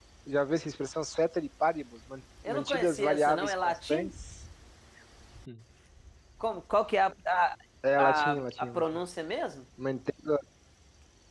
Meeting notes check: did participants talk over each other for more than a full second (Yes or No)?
Yes